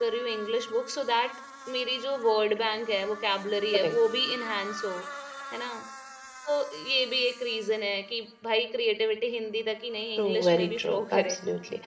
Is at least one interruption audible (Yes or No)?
Yes